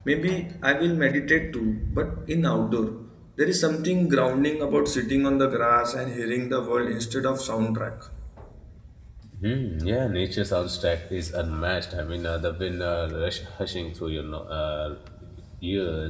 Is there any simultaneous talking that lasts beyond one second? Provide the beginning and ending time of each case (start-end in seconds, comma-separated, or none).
none